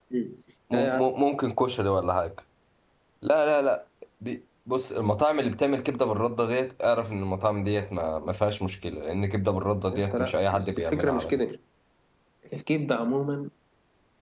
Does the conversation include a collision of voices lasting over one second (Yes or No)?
Yes